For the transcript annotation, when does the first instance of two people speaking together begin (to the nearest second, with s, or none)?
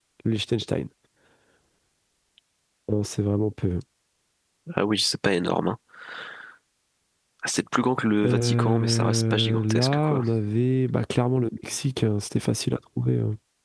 8 s